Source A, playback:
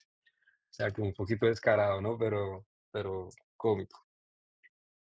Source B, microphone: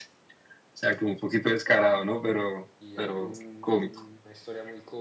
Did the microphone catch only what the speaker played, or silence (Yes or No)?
No